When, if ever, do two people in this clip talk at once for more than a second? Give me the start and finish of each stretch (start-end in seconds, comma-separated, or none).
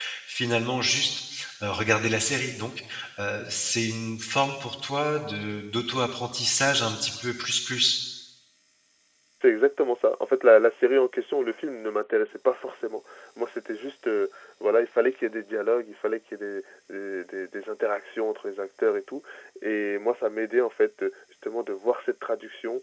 none